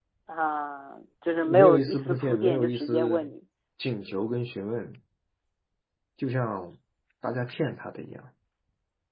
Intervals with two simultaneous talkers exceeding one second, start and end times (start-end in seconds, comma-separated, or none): 1.5-3.3